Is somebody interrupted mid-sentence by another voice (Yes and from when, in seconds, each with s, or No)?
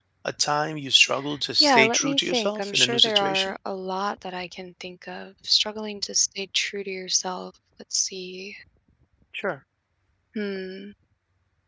Yes, from 1.6 s